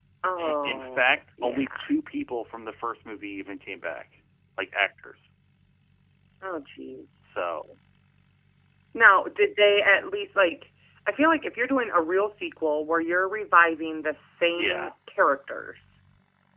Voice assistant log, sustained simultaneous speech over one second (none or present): present